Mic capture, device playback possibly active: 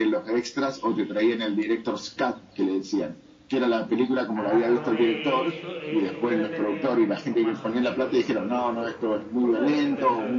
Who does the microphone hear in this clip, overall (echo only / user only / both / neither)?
both